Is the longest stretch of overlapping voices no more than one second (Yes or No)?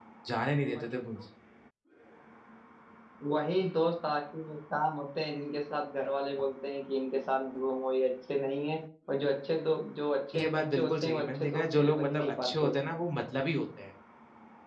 No